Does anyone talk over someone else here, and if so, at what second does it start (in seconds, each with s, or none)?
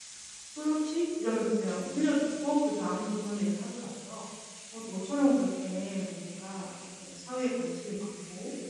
none